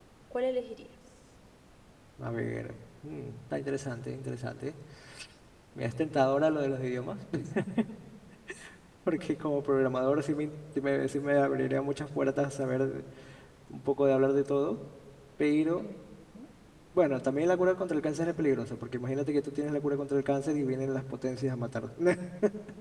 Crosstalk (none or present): none